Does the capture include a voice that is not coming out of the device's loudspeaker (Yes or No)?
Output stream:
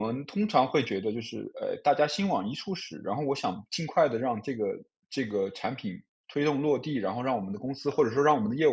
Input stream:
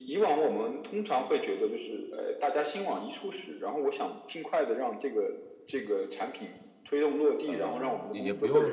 Yes